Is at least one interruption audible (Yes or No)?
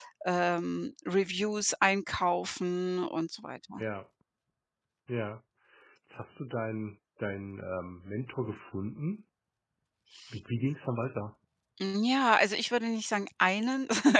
No